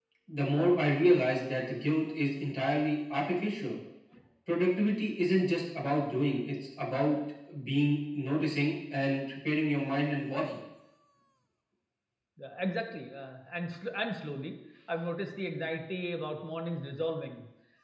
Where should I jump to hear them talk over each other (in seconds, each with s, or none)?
none